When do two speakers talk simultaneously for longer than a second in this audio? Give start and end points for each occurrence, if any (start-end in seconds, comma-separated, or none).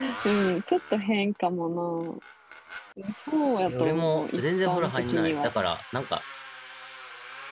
3.7-5.5